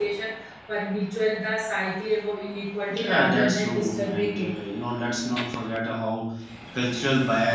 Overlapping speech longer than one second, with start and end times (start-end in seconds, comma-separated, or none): 3.0-4.5